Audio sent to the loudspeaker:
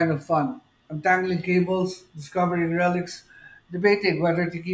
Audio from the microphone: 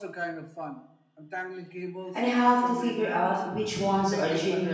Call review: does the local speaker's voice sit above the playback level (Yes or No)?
Yes